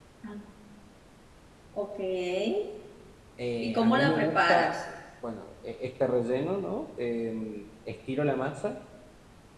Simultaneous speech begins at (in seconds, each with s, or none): 3.6 s